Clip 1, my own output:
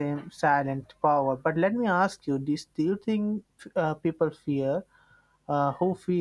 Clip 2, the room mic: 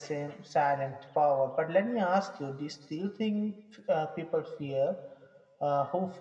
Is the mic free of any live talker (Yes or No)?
Yes